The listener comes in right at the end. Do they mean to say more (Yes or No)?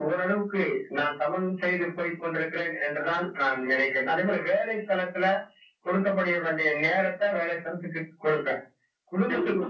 No